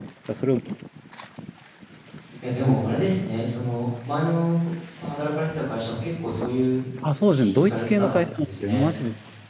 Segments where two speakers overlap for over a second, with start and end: 7.3-8.8

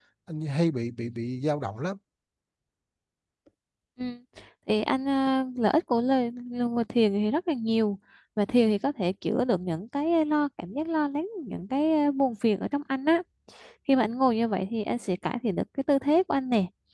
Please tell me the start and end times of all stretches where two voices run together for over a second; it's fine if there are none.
none

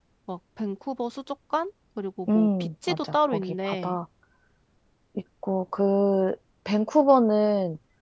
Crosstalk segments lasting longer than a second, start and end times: 2.3-4.0

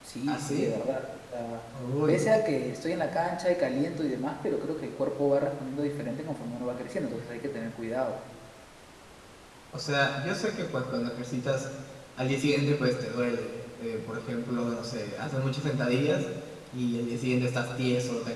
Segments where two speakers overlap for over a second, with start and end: none

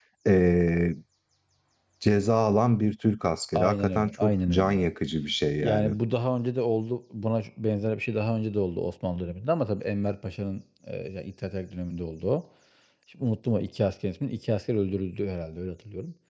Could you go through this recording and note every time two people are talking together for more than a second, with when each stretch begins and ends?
3.5-4.9

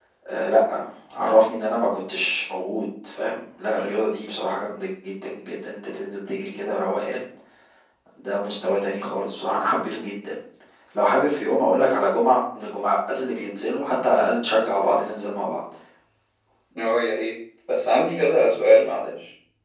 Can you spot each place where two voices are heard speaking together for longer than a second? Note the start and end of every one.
none

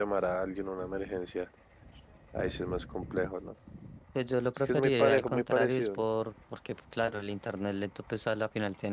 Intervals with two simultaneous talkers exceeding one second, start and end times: 4.7-6.0

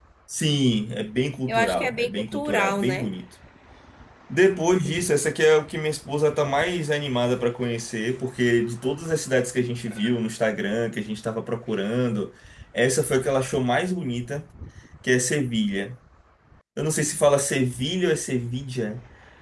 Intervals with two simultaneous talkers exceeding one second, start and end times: 1.5-3.1

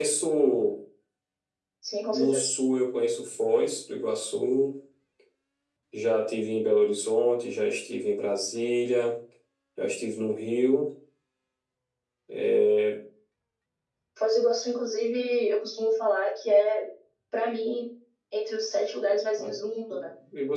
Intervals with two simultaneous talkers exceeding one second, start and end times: none

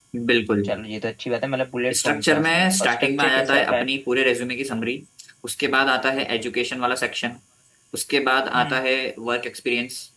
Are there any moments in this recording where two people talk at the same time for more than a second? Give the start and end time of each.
2.0-3.9

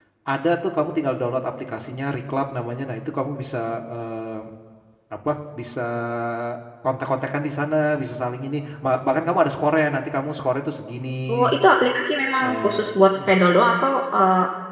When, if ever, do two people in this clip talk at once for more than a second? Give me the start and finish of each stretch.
none

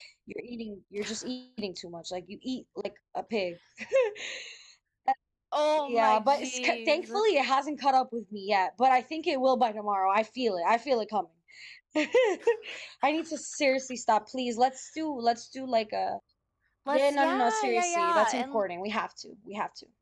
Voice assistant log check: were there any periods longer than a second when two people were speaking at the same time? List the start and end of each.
5.8-7.2, 16.9-18.6

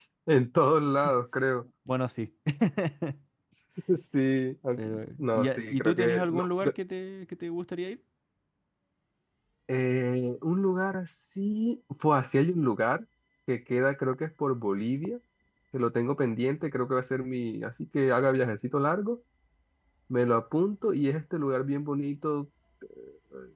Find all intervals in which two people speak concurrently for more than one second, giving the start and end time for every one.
4.8-6.5

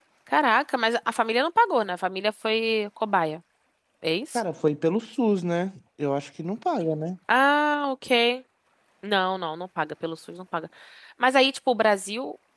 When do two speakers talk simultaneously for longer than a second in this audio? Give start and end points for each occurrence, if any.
none

